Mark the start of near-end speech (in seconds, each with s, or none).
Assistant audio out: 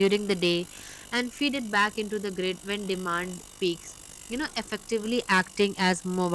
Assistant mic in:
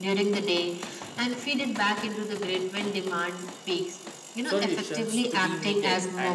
4.4 s